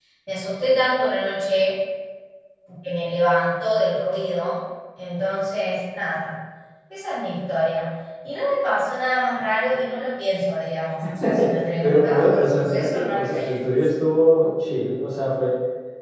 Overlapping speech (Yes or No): Yes